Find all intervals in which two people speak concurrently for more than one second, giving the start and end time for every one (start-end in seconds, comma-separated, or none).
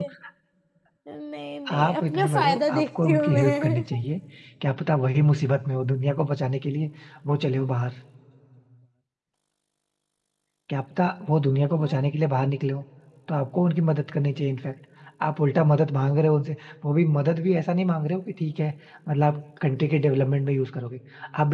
1.7-3.8